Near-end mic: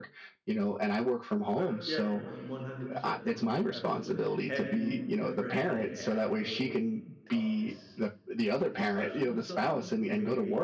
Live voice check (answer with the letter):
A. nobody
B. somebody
B